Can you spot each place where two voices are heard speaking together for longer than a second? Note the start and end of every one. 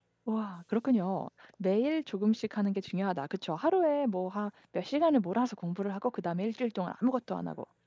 none

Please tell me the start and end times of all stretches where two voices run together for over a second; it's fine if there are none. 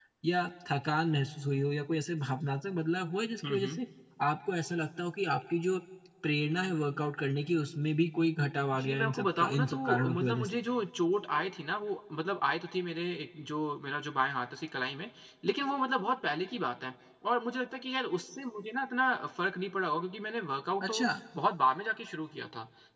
8.8-10.6

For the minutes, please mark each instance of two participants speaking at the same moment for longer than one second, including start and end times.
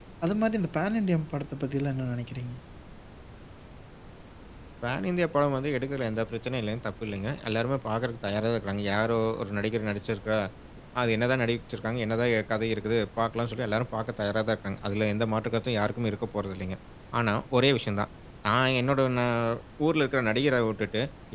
none

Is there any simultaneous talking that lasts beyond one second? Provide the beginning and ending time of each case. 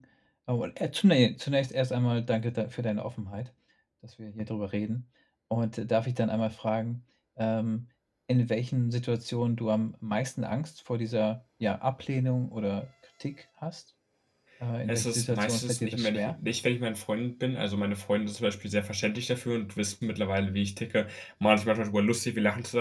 14.9-16.4

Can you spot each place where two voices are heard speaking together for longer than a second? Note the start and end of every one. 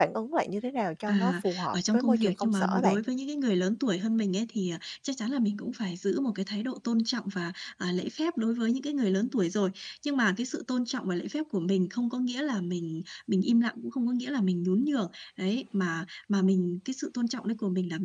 1.1-3.0

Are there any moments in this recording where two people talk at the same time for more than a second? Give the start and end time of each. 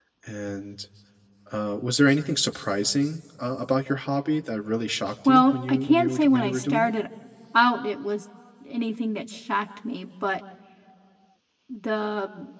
5.2-6.9

